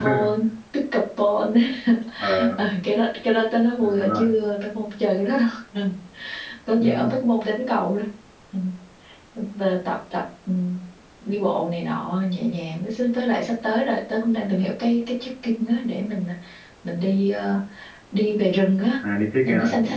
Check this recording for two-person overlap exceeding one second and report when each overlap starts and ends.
none

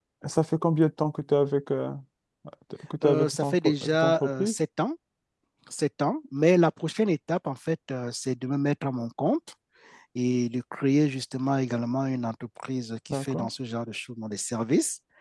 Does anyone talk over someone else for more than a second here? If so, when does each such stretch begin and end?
3.0-4.5

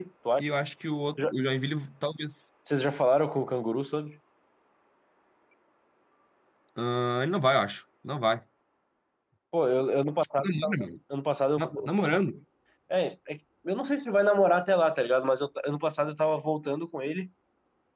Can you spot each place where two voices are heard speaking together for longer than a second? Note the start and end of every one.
none

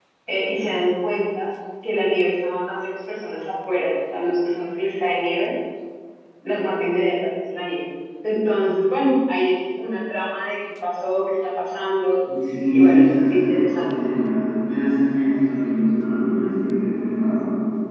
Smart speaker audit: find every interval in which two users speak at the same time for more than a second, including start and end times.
12.7-13.9

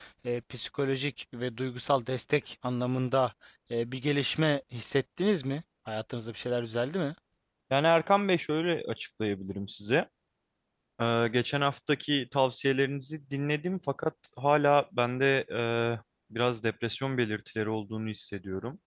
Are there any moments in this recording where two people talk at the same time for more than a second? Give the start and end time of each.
none

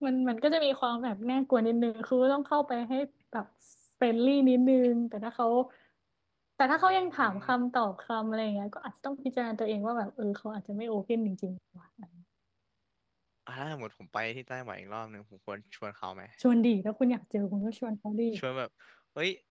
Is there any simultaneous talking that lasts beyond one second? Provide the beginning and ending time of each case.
none

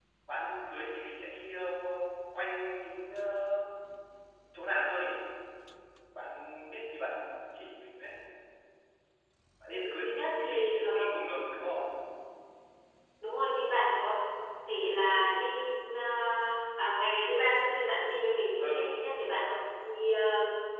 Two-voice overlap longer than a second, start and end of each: 9.7-11.0

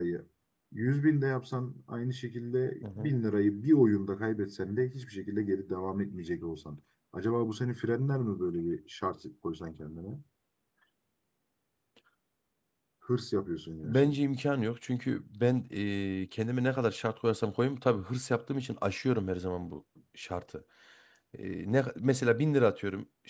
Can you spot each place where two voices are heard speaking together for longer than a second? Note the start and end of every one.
none

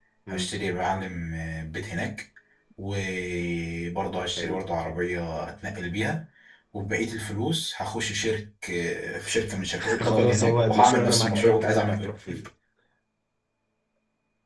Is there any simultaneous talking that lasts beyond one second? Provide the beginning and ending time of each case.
10.0-12.3

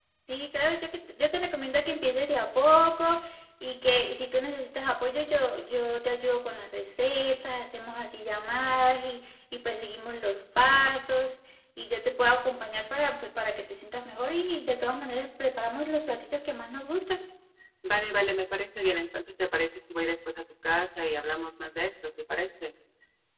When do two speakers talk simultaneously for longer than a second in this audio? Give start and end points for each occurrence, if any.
none

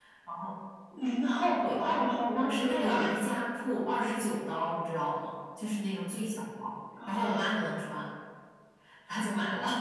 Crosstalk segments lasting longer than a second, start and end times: 1.5-3.0

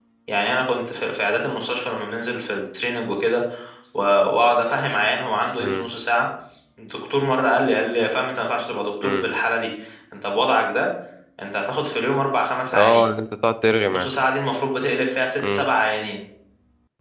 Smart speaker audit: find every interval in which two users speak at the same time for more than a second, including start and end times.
none

